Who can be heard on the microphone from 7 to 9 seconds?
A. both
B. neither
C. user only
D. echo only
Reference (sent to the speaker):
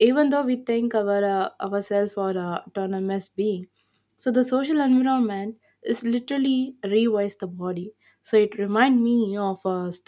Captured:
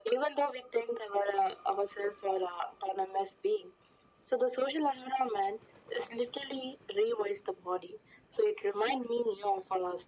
D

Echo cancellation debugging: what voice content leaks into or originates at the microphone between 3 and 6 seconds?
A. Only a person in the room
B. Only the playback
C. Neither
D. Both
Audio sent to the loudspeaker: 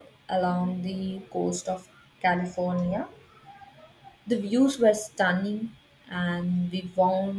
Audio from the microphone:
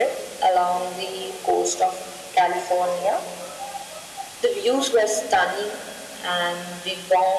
B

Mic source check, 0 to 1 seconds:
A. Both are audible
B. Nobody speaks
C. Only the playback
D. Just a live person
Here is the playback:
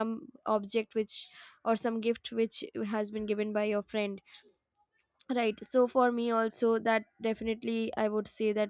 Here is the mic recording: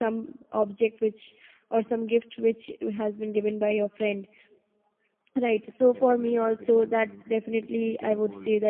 C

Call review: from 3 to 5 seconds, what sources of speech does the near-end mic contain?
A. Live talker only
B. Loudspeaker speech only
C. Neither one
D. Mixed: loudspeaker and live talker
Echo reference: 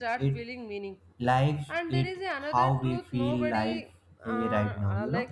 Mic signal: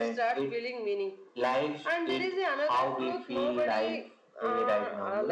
B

